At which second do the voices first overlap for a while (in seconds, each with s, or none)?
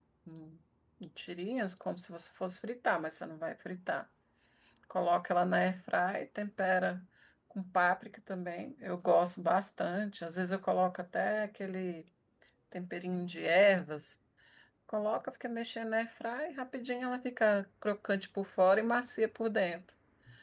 none